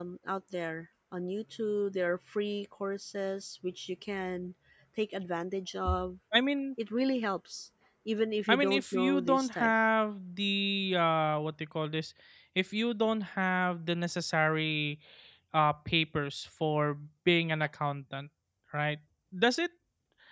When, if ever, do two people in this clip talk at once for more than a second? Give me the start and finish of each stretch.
8.5-9.7

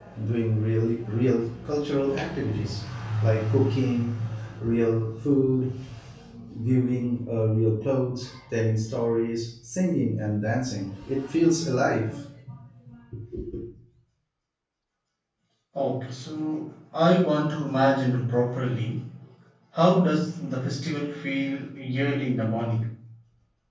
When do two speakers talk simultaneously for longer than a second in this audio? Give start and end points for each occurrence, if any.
none

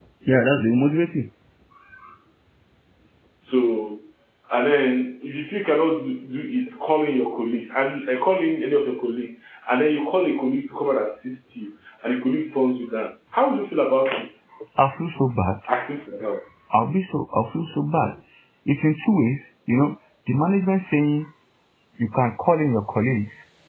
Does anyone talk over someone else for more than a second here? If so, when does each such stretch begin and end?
none

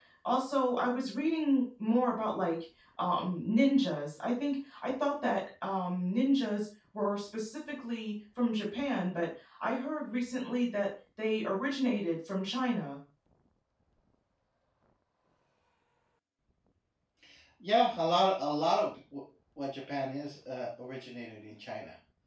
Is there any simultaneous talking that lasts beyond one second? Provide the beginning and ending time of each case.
none

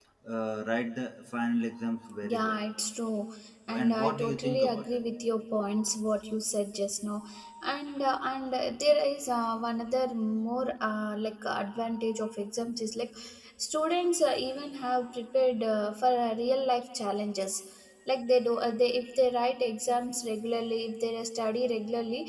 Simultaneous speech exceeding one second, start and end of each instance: 3.8-5.0

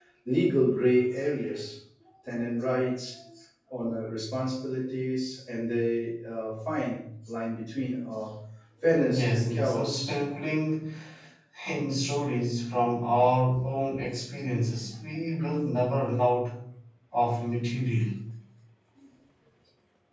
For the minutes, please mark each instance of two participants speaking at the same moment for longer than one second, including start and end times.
8.8-10.2

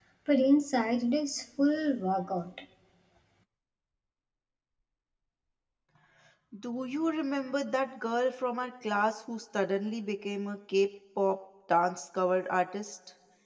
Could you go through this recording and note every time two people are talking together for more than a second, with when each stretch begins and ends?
none

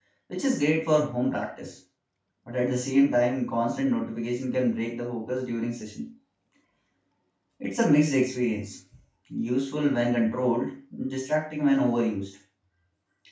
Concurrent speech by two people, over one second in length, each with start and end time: none

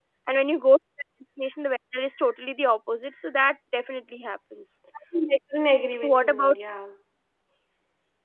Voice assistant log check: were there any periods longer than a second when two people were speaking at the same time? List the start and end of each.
none

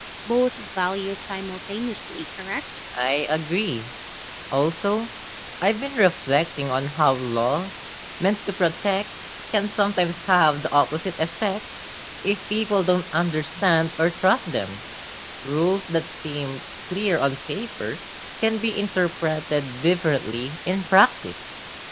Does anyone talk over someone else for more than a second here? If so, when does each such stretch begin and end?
none

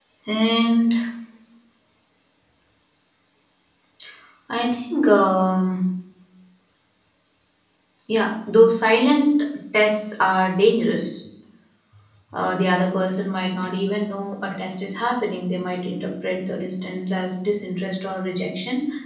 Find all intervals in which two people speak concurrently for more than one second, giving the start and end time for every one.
none

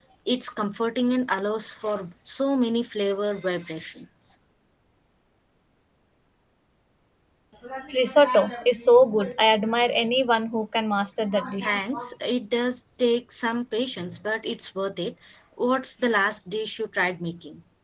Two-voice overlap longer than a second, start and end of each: none

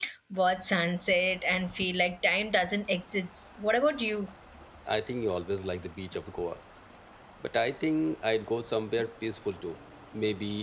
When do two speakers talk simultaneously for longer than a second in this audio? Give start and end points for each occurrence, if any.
none

